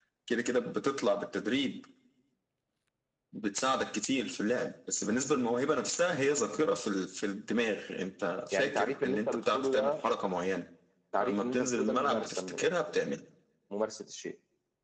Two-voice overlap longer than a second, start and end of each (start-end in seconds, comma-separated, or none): 8.5-9.9, 11.2-13.0